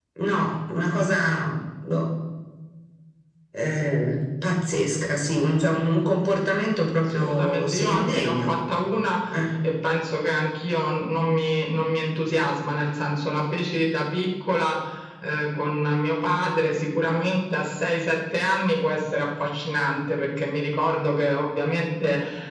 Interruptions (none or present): present